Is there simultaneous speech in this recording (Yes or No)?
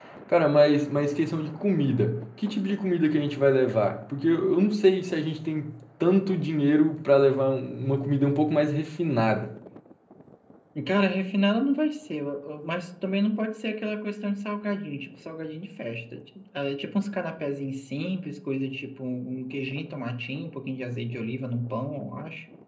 No